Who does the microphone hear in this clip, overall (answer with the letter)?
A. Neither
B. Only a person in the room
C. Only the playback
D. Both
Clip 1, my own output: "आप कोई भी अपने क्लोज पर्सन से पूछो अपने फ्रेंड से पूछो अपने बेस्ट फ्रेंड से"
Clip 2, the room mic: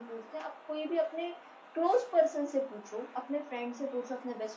C